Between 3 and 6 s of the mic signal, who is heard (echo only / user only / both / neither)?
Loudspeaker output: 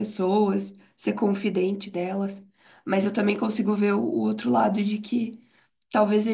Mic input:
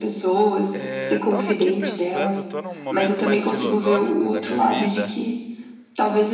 both